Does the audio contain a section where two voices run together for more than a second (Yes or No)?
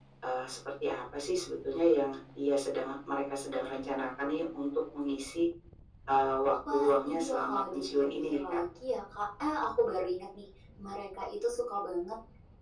Yes